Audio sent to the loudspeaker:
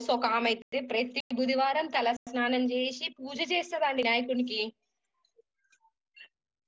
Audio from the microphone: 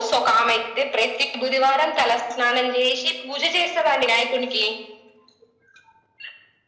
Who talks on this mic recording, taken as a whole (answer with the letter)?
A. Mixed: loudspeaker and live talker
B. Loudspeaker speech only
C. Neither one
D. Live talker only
B